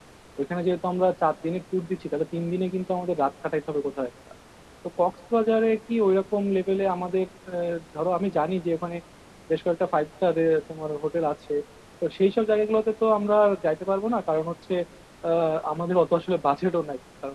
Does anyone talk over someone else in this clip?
No

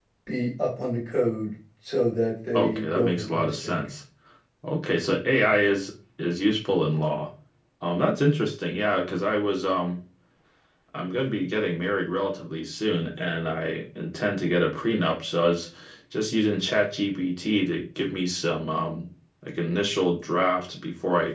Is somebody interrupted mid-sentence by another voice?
Yes, from 2.5 s

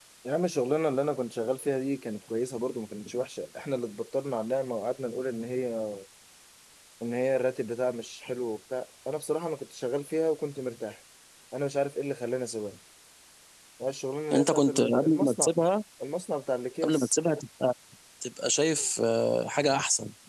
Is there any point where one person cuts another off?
Yes, from 14.3 s

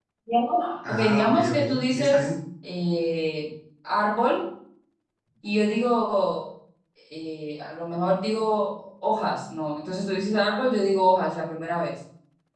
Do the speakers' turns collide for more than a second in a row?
Yes, from 0.8 s

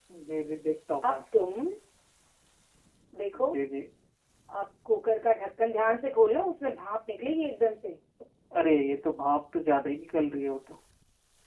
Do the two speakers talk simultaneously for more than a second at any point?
No

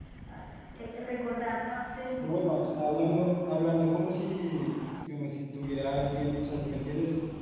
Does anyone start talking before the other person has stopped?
No

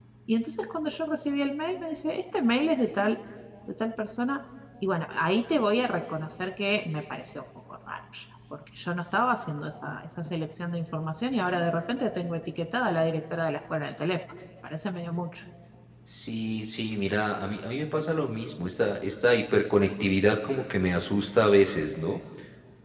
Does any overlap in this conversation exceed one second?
No

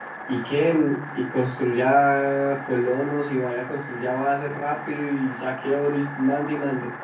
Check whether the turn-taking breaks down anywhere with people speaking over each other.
No

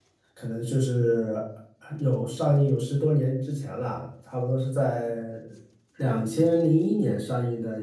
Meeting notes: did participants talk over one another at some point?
No

